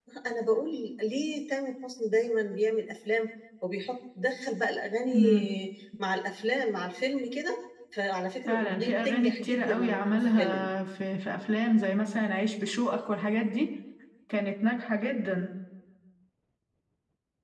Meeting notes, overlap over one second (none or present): present